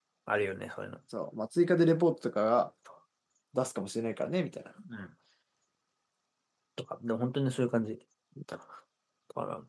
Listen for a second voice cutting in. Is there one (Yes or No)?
No